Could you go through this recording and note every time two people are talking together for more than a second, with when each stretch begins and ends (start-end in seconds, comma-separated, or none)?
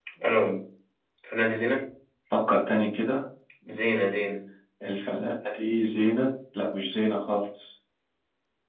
none